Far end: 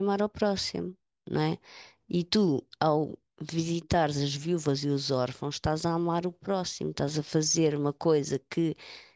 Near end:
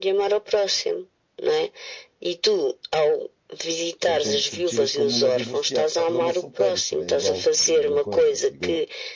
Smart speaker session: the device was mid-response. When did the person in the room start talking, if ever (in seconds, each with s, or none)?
4.0 s